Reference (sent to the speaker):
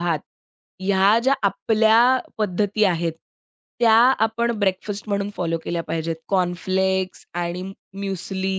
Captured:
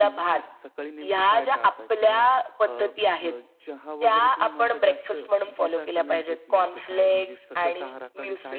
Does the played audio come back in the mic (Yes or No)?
Yes